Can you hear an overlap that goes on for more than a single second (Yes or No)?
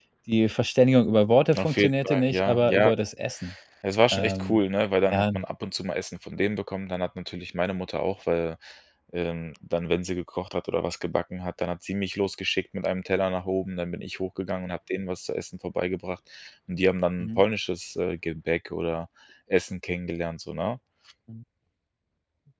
Yes